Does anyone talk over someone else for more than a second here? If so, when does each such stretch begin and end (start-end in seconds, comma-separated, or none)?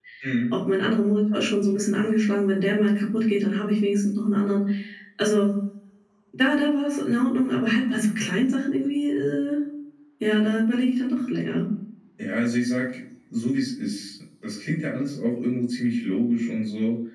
none